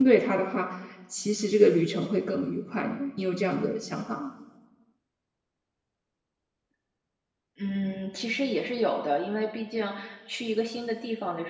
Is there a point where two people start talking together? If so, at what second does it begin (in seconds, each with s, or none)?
none